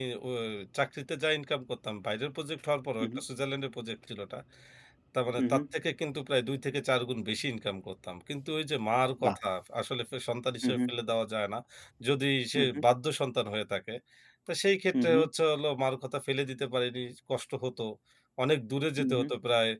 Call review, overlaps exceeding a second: none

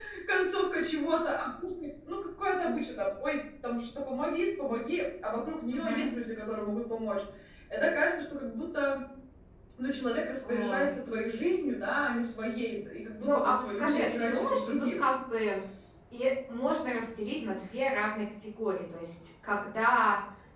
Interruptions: present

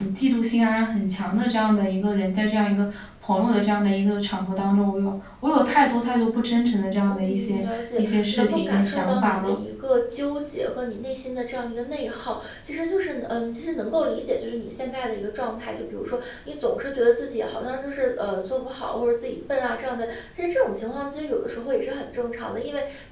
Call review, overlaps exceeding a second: present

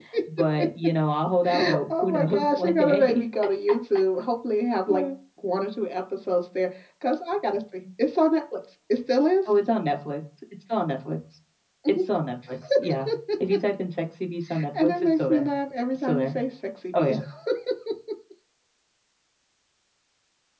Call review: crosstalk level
present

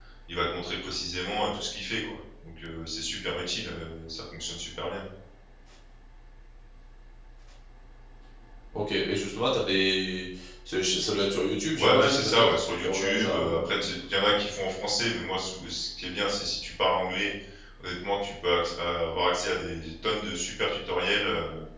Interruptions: present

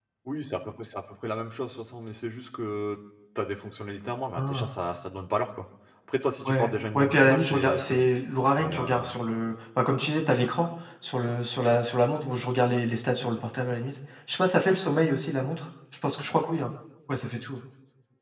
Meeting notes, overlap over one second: present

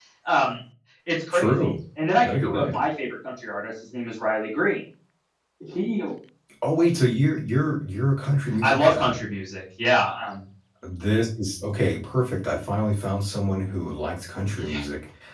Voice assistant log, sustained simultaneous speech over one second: none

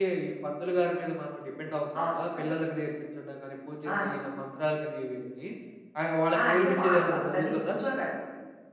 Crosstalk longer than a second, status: present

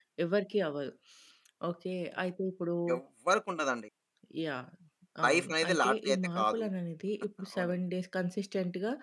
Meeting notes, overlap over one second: present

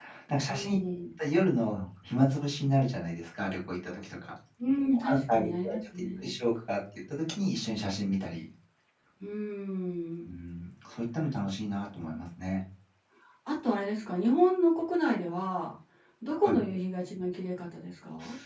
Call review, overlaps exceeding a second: present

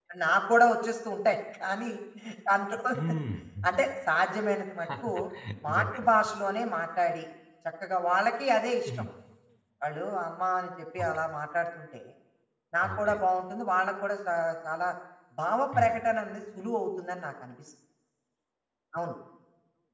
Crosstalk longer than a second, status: none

